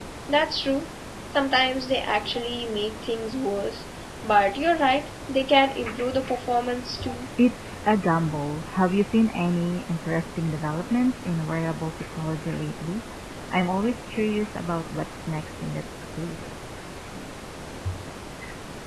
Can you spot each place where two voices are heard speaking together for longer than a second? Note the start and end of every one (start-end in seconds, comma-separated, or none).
none